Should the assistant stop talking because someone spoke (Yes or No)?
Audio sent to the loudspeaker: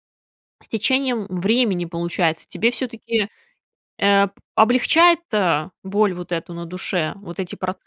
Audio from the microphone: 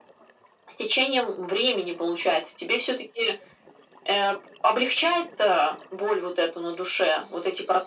No